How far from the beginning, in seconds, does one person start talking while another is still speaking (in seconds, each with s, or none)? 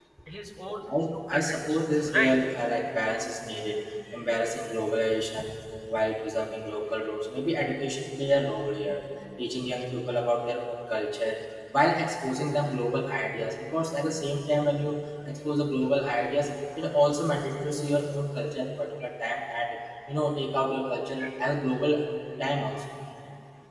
1.1 s